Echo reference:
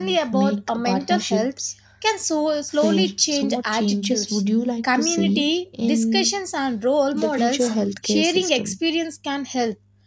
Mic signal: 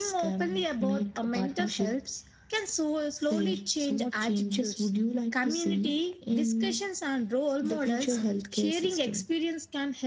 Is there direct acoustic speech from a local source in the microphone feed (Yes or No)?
No